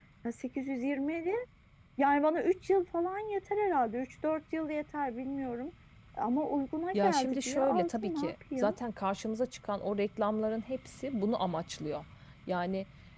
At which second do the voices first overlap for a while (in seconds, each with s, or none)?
6.9 s